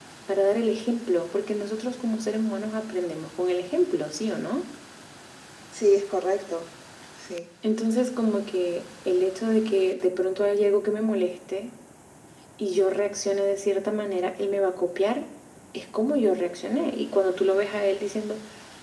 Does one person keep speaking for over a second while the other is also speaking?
No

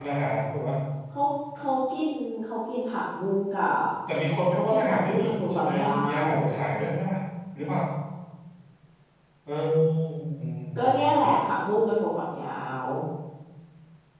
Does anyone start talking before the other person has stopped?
Yes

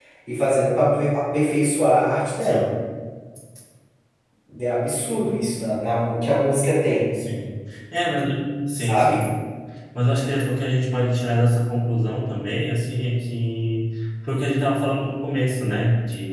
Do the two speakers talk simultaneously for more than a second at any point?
No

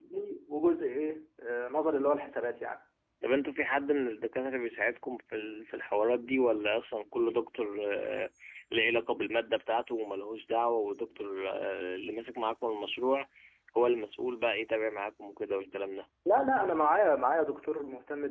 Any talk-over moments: No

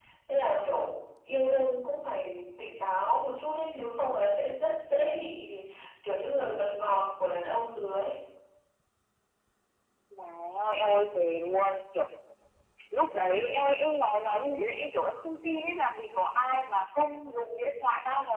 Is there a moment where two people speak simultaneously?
No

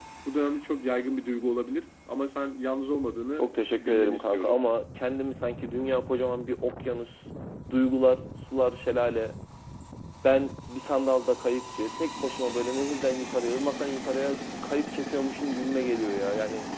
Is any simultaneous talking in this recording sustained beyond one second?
Yes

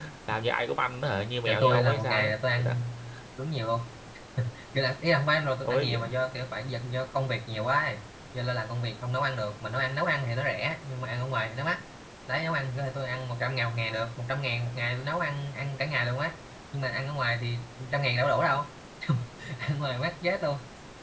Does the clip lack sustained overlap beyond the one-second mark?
No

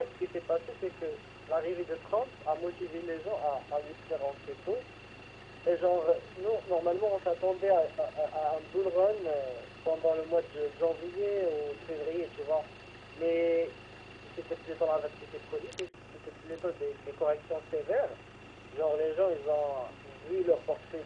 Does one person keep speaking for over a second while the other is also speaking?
No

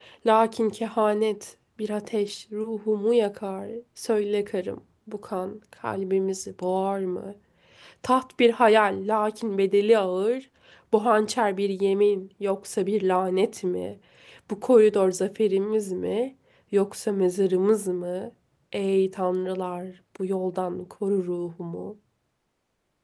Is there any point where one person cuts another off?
No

